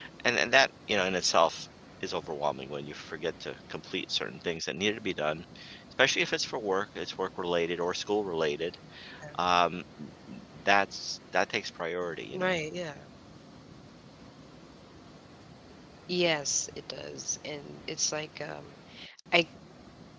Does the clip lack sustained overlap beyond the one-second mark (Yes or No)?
Yes